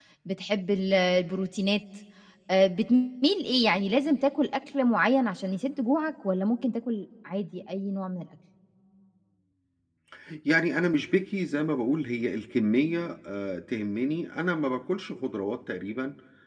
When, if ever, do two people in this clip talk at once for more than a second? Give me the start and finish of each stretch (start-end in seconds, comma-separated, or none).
none